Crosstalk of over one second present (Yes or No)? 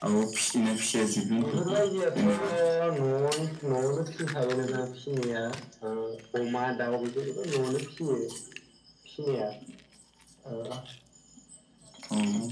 No